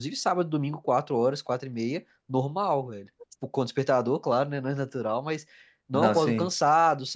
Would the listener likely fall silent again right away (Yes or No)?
Yes